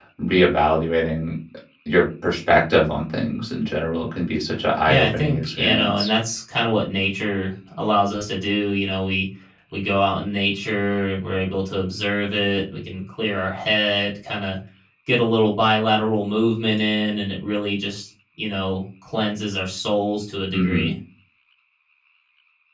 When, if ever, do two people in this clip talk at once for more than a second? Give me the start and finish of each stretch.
4.9-6.1

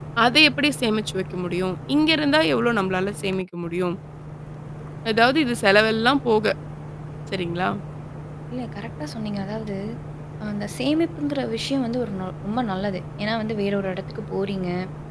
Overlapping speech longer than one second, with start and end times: none

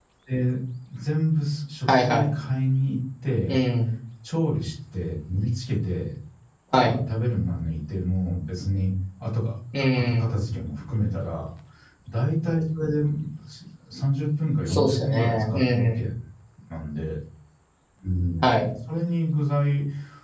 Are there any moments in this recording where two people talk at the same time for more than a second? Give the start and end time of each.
14.7-16.0

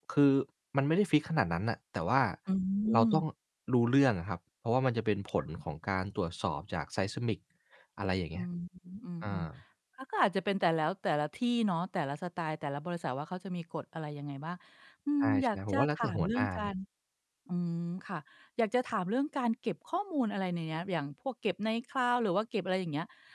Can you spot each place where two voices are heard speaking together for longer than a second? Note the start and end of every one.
15.2-16.7

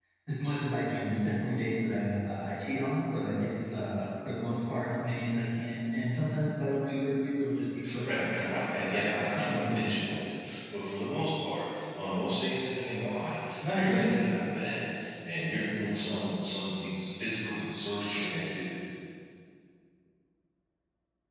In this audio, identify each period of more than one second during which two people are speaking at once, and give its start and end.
8.0-9.9

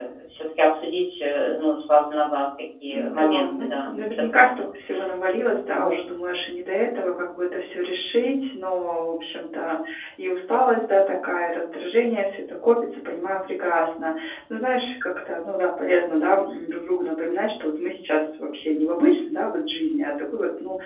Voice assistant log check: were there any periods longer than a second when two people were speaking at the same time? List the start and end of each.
2.9-4.7

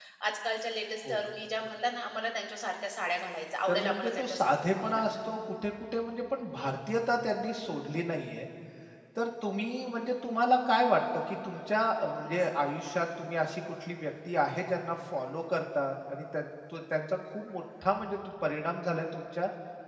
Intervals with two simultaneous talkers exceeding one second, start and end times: 3.7-5.0

